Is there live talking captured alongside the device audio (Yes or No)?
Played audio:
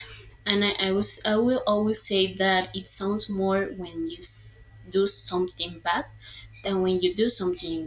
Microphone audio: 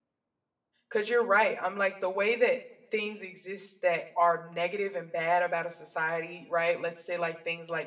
Yes